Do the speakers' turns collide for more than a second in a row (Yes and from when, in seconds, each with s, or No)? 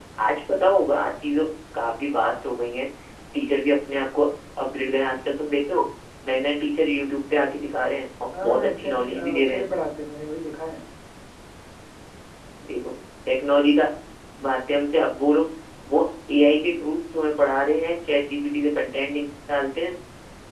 Yes, from 8.3 s